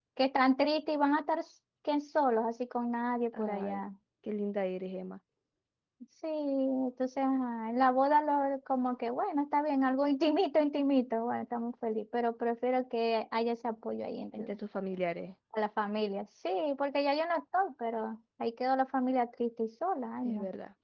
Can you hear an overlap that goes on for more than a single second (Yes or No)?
No